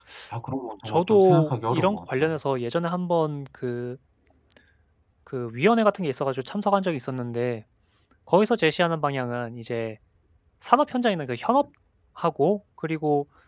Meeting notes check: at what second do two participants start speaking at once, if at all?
0.8 s

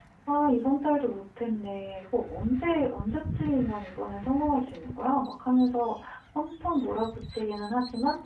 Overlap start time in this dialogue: none

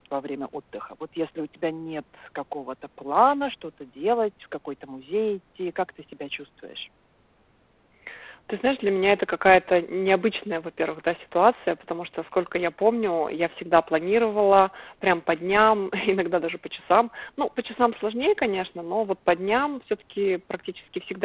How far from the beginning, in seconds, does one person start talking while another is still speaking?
none

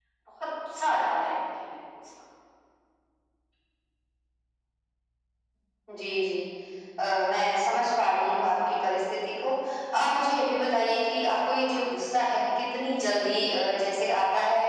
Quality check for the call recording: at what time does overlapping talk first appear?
none

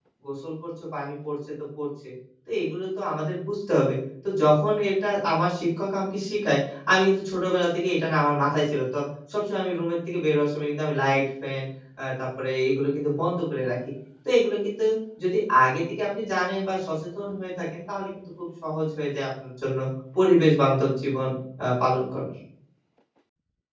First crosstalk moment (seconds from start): none

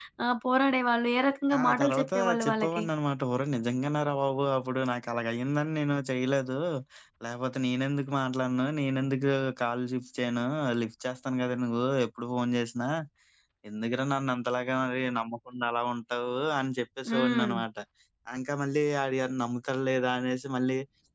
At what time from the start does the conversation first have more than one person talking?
1.6 s

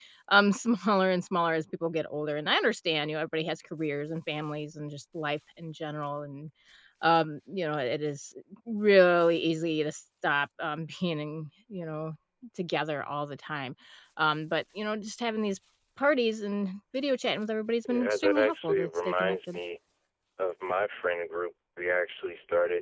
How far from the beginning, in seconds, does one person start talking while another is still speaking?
17.9 s

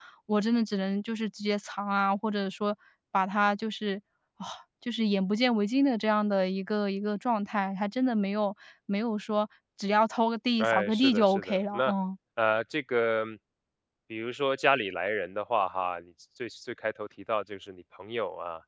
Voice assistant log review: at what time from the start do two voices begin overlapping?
10.6 s

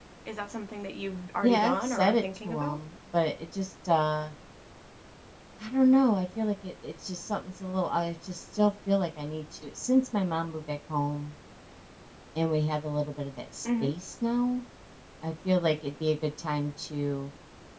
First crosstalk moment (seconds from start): 1.4 s

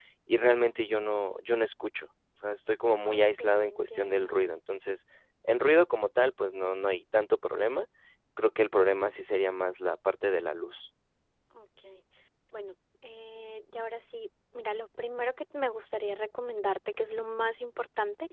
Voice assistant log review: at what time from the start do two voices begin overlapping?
3.0 s

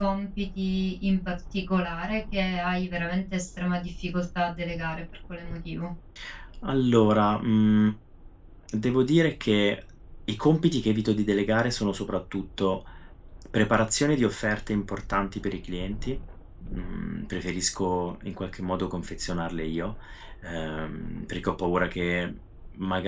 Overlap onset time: none

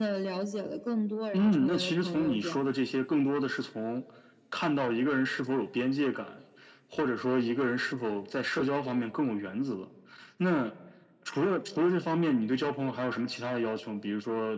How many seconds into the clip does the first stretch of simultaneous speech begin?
1.3 s

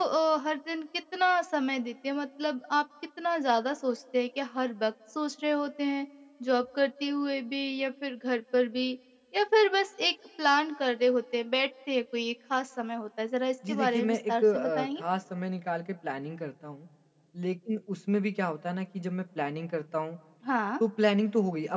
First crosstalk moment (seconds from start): 13.6 s

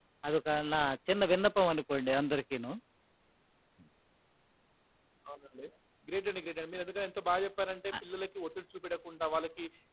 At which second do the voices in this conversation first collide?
none

